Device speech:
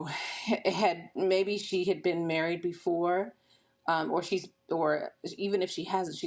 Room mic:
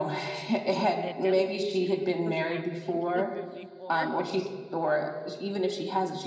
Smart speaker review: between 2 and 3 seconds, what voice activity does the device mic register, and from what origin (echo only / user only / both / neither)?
both